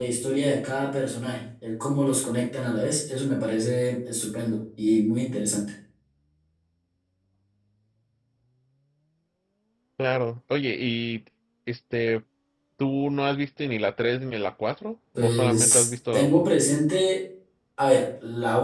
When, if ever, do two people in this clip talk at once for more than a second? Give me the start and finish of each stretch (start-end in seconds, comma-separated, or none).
15.2-16.5